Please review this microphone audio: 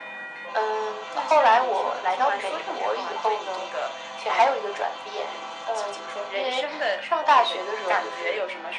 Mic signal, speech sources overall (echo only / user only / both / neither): echo only